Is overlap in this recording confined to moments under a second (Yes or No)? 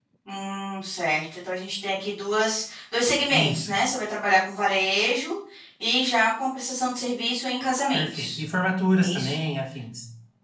Yes